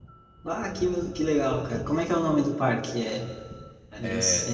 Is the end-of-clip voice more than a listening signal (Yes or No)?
No